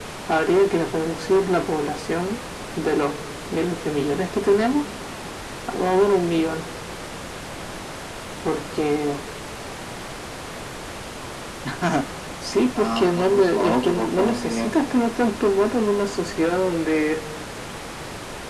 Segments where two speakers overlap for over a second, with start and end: 12.8-14.7

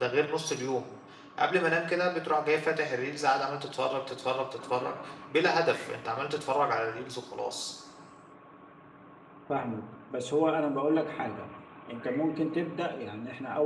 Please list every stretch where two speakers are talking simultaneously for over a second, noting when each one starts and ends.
none

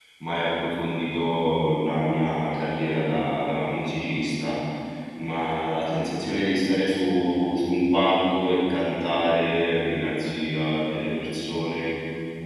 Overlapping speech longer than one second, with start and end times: none

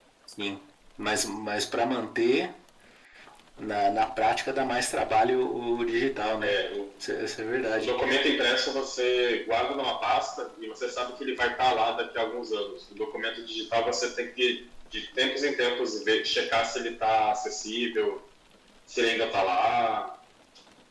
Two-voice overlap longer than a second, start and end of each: none

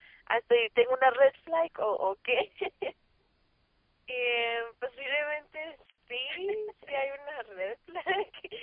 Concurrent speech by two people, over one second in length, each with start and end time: none

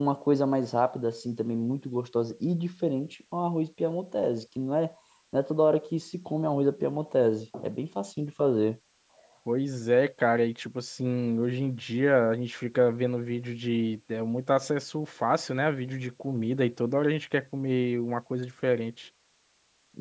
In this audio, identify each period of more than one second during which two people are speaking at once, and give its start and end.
none

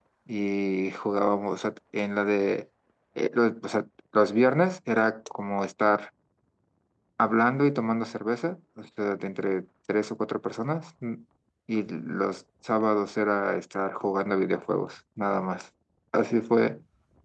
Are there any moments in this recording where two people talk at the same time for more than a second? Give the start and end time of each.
none

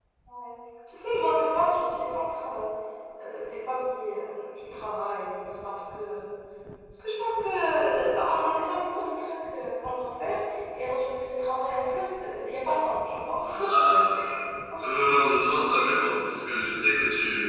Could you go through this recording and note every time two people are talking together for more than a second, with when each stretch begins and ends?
none

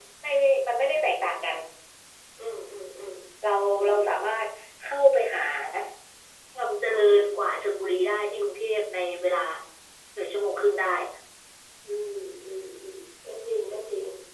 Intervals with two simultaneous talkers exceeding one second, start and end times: none

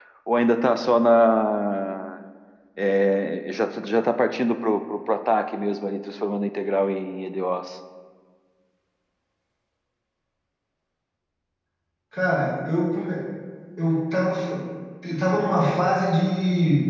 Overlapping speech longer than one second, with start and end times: none

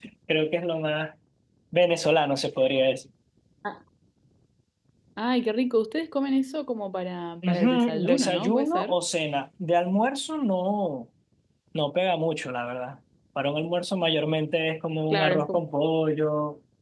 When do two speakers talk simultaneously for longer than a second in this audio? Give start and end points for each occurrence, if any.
7.5-9.0

